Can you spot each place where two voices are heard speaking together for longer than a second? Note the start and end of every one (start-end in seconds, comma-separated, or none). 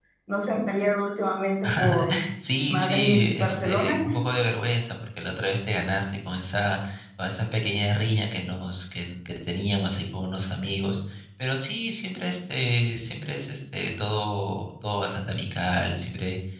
2.7-4.0